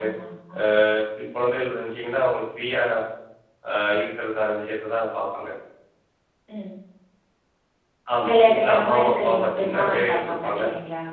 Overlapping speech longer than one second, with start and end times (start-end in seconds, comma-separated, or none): 8.3-10.6